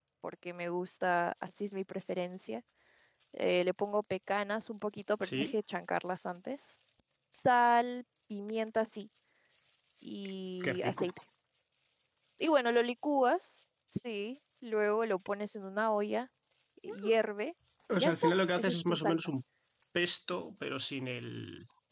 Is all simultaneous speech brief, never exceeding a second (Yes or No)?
No